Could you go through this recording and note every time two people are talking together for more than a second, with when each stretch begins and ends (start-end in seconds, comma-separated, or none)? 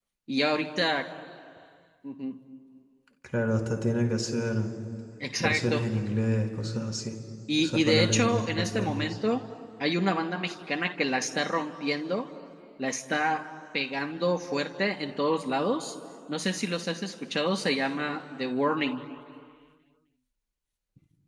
7.6-9.1